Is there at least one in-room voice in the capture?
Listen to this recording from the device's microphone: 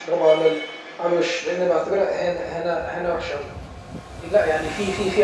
No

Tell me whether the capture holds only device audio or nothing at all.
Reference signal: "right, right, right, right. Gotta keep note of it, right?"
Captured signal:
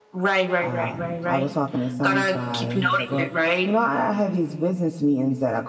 No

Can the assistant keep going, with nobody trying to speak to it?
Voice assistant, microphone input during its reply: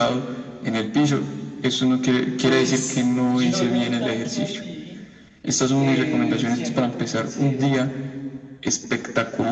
No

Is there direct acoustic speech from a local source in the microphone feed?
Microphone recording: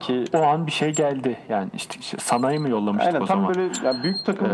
No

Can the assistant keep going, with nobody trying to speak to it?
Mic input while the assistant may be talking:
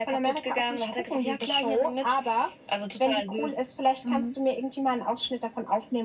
Yes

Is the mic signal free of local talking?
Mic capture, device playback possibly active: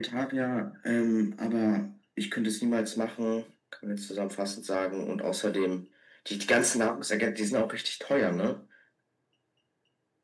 Yes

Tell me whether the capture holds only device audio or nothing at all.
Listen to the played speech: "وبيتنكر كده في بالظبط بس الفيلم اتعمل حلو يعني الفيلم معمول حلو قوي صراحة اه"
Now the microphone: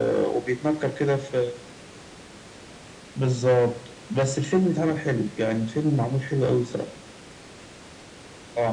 Yes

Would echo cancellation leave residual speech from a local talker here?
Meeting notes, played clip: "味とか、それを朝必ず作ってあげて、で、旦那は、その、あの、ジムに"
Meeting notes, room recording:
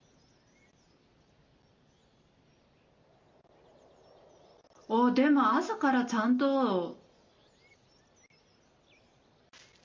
Yes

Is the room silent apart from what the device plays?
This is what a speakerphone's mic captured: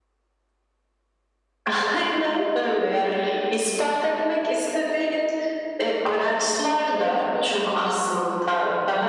No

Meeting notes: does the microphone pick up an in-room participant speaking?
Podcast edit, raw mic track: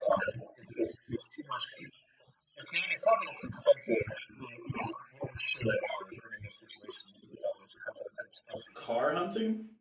Yes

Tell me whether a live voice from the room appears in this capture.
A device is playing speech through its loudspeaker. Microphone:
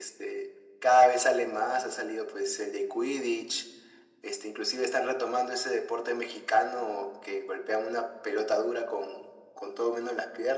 No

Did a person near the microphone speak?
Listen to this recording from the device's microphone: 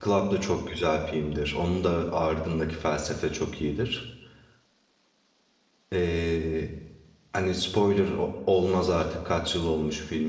Yes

